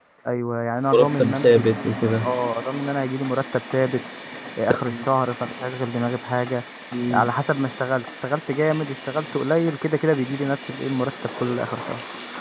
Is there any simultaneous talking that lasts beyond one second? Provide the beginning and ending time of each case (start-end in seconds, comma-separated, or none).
0.9-2.3